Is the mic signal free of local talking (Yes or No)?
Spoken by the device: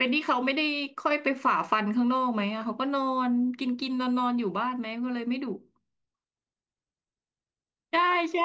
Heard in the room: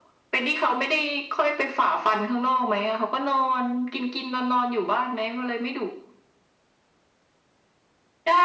Yes